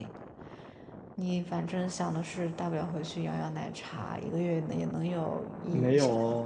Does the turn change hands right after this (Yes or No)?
Yes